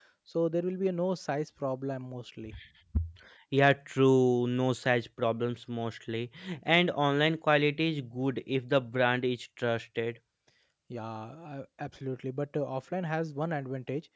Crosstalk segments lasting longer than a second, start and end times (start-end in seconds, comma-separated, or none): none